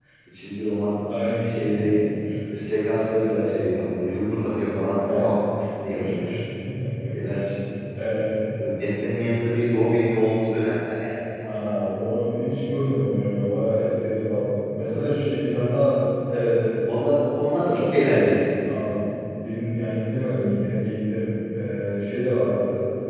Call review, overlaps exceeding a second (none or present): none